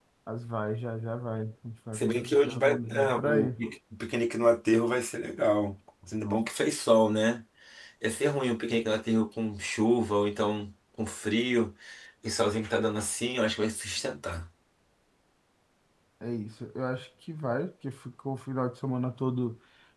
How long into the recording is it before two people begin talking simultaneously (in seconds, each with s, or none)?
1.9 s